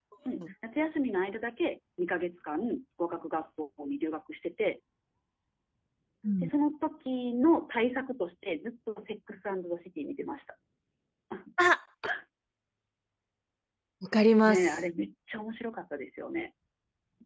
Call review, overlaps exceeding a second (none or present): none